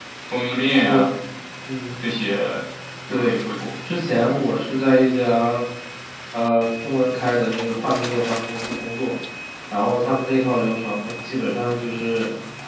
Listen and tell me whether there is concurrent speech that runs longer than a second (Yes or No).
No